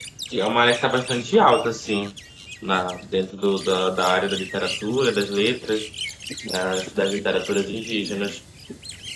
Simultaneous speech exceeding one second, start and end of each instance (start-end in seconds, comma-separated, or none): none